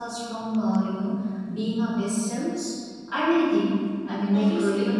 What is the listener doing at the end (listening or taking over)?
taking over